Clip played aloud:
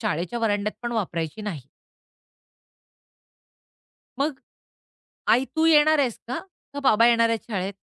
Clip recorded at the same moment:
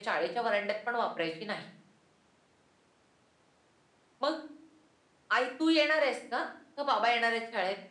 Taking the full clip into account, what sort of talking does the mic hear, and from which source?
echo only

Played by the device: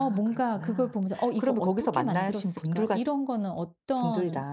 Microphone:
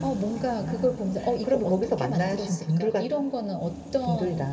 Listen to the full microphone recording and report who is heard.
echo only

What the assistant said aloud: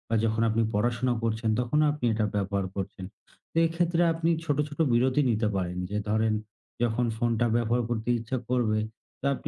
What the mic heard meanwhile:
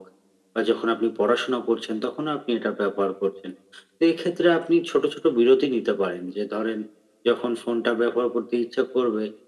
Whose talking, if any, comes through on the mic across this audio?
echo only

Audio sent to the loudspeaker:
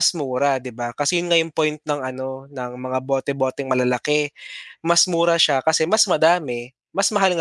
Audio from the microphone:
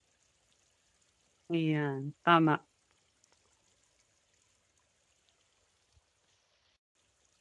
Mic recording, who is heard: user only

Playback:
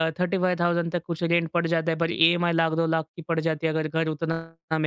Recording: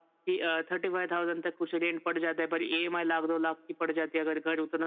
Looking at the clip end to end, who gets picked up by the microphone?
echo only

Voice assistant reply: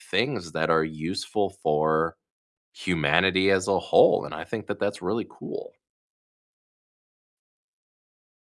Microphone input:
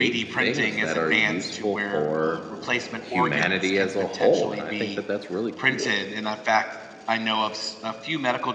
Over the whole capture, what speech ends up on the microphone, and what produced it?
both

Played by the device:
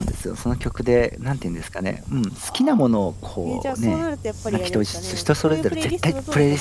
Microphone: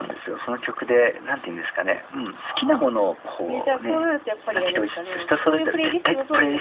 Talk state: echo only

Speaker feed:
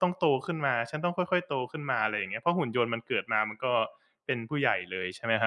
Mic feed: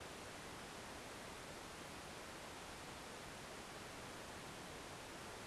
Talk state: neither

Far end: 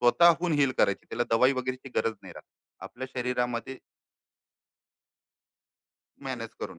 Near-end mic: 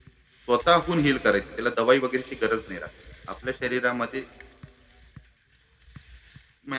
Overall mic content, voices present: echo only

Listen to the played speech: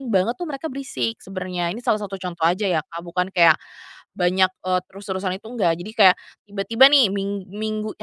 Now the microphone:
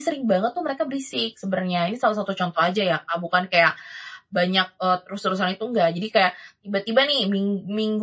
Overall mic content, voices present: echo only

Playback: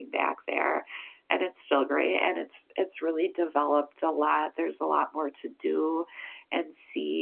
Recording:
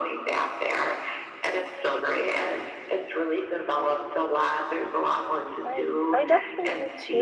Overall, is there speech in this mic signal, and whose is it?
both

